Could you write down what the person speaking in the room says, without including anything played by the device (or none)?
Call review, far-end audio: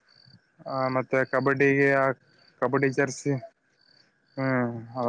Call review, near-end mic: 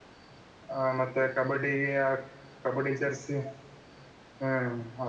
none